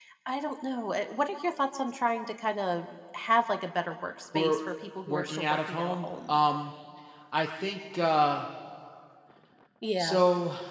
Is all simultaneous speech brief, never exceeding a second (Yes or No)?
No